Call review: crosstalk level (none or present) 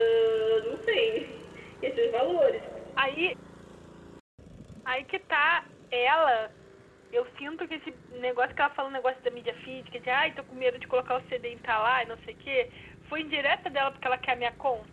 none